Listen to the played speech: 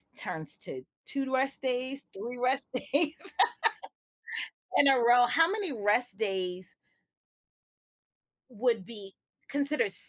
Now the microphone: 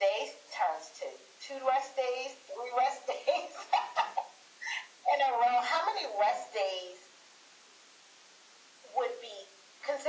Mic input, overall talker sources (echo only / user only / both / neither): echo only